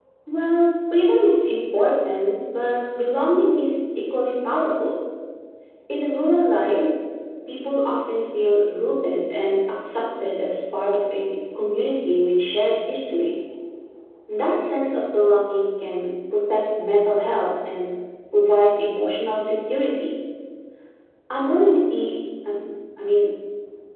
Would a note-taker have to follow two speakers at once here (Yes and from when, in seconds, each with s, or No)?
No